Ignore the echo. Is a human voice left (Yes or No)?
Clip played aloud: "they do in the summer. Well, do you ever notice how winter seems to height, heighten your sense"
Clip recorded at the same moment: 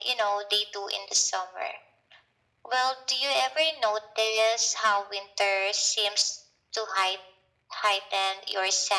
No